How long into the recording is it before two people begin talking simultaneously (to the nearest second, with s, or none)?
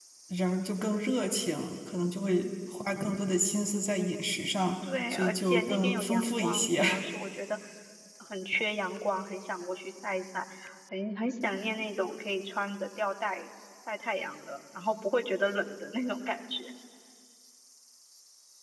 5 s